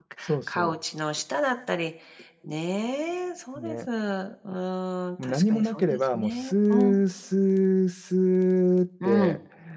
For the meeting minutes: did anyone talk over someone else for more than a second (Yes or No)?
Yes